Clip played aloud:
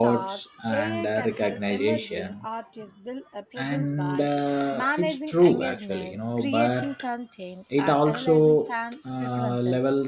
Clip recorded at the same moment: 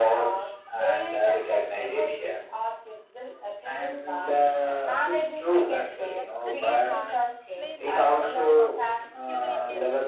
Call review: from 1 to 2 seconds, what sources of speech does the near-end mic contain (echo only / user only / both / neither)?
echo only